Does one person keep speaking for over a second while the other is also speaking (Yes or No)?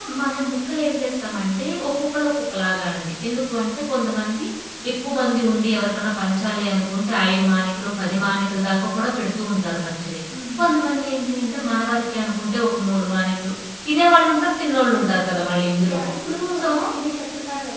No